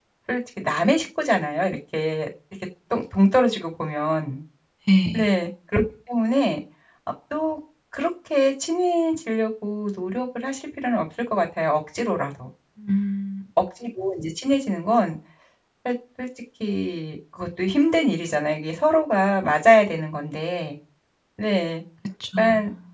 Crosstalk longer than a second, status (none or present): none